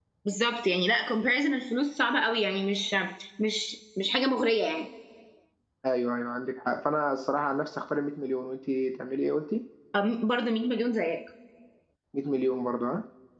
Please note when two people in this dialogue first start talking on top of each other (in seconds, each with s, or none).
none